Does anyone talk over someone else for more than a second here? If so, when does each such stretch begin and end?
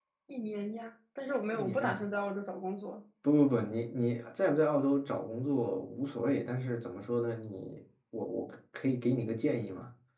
none

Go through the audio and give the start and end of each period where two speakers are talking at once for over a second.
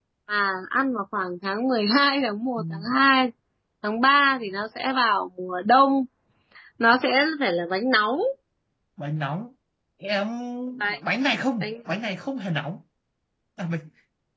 none

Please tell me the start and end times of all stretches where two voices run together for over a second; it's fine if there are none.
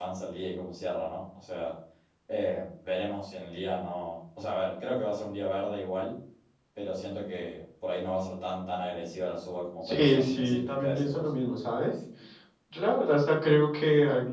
9.8-11.3

